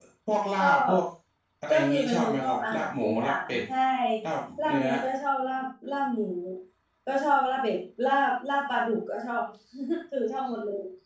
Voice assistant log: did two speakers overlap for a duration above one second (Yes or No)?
Yes